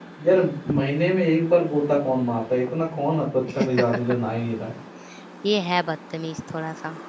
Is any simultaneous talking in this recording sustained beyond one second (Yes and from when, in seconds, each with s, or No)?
No